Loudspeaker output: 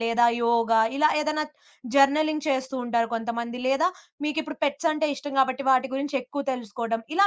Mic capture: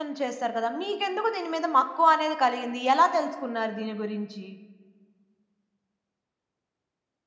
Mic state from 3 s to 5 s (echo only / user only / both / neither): user only